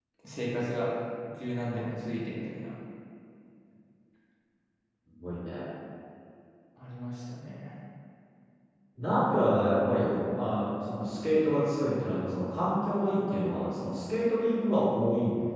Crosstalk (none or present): none